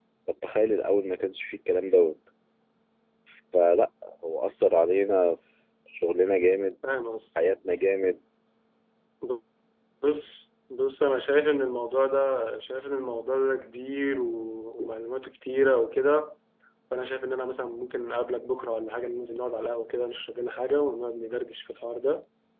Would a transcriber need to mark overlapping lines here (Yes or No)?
No